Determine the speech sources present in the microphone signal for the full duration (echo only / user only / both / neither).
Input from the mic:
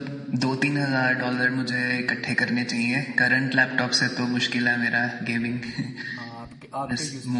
both